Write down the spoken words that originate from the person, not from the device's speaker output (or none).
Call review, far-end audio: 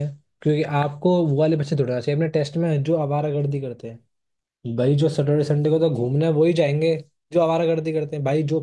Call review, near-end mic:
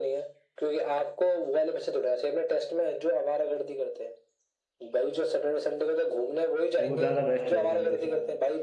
वो ज्यादा बेस्ट रहेगी मेरे हिसाब से